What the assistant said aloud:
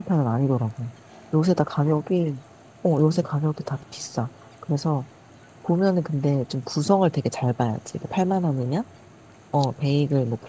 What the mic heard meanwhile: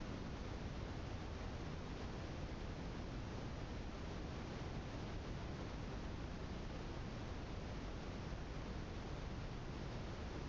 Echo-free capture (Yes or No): Yes